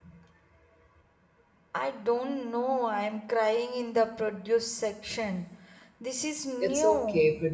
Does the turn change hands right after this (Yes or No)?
Yes